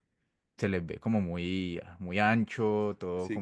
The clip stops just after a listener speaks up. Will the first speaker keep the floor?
No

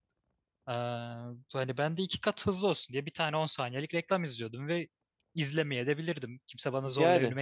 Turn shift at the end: Yes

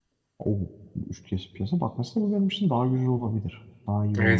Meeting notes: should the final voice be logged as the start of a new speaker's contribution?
Yes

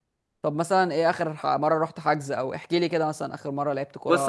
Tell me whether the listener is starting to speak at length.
Yes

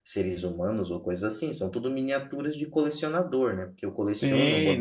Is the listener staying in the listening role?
No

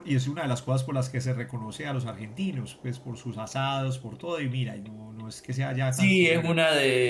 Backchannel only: No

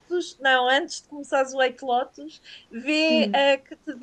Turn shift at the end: No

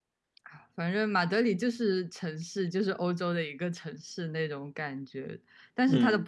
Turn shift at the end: No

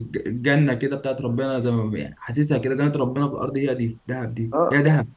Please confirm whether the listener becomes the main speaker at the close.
Yes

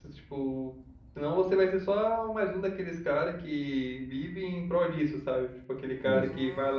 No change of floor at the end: Yes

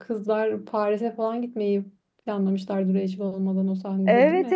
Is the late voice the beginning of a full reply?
Yes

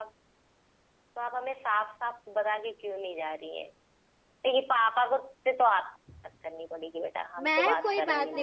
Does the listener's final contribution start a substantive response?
Yes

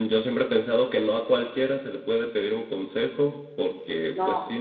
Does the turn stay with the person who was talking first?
Yes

